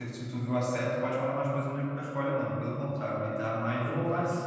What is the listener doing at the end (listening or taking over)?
taking over